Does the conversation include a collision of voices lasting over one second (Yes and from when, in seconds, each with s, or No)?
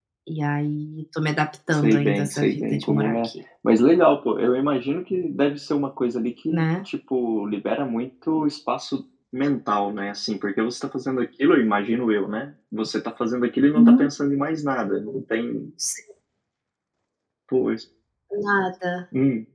Yes, from 1.7 s